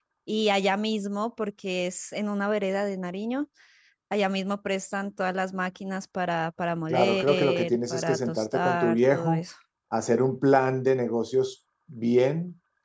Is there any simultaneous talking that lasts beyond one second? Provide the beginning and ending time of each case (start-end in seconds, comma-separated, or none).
6.9-9.4